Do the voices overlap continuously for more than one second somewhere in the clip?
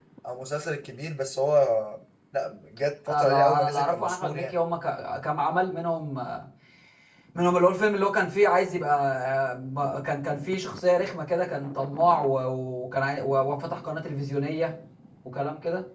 Yes, from 3.1 s

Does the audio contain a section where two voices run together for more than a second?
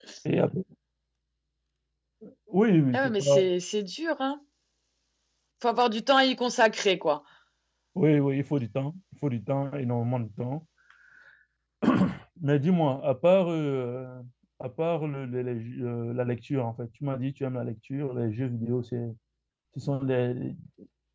No

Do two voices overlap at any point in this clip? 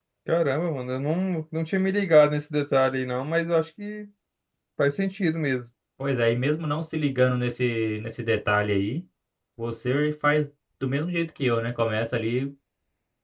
No

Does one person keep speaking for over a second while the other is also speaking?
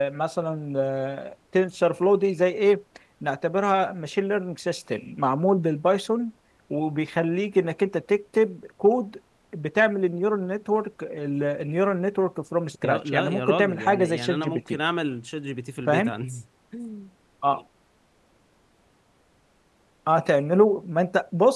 Yes, from 12.8 s

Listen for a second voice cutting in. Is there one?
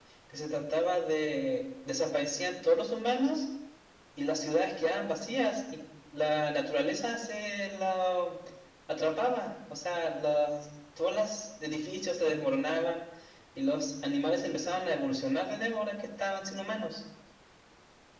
No

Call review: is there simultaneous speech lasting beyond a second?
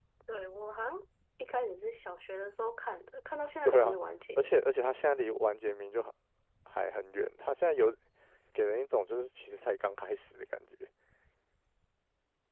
No

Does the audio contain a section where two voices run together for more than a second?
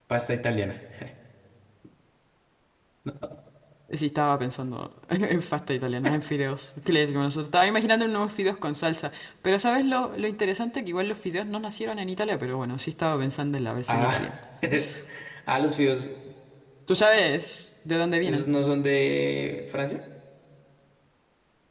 No

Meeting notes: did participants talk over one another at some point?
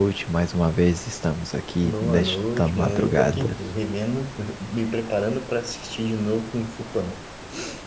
Yes, from 1.8 s

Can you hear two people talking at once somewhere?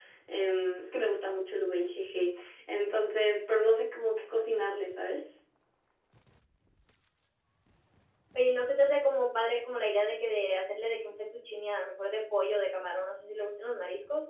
No

